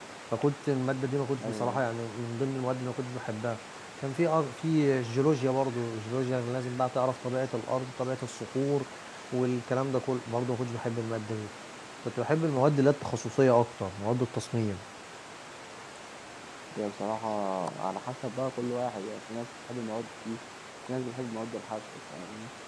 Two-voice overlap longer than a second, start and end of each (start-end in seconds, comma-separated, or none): none